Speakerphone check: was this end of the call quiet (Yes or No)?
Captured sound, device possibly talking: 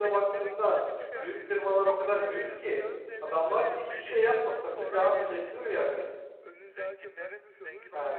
No